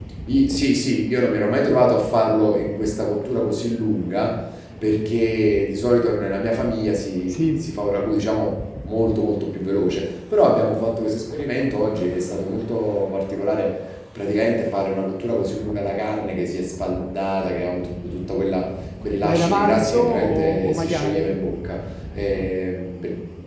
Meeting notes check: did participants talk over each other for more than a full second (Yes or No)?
Yes